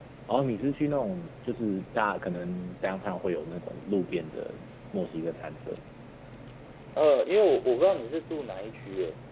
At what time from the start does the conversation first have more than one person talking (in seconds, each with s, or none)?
none